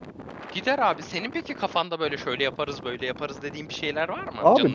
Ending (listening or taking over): taking over